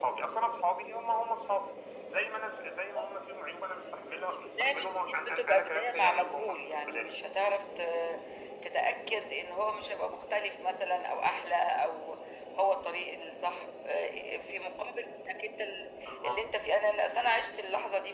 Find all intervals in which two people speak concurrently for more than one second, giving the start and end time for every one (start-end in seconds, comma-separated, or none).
4.3-7.1